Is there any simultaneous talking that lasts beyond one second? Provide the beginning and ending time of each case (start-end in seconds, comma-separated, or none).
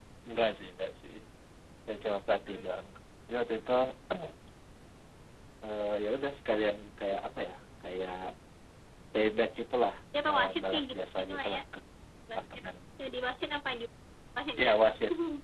10.3-11.6